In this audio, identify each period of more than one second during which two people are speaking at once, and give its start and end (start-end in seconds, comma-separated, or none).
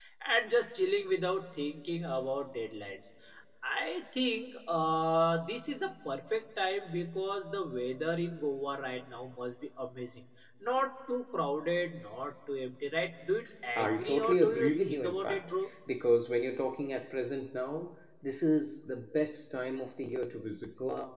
13.8-15.5